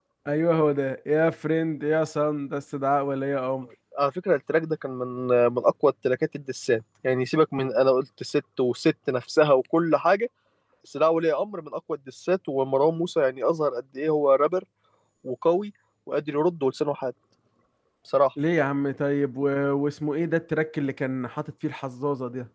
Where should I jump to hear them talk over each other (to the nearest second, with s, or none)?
none